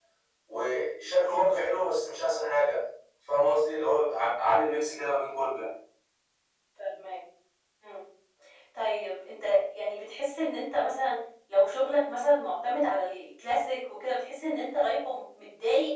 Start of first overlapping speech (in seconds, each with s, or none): none